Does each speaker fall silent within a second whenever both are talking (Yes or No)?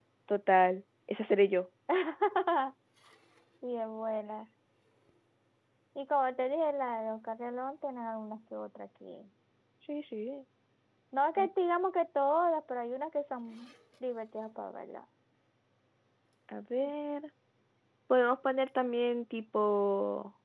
Yes